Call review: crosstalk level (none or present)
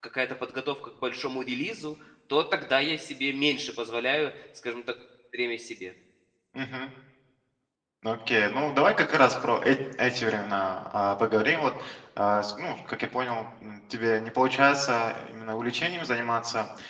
none